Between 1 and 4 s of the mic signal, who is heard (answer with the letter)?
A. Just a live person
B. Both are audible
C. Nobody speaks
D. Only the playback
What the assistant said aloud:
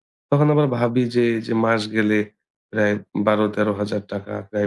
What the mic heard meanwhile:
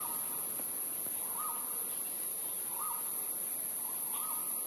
C